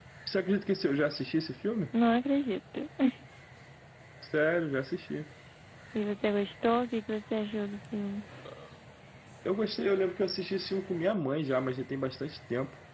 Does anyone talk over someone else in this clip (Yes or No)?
No